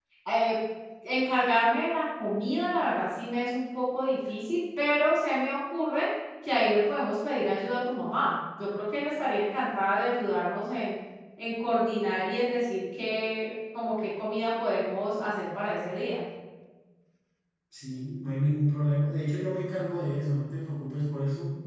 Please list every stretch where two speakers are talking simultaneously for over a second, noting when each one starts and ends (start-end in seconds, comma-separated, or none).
none